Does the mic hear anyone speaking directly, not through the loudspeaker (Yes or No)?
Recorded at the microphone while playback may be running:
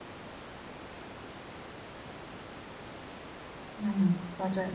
Yes